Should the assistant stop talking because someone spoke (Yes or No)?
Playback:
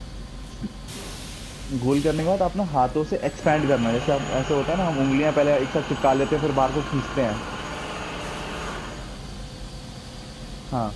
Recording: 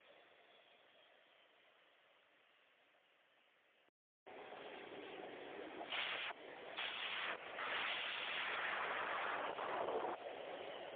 No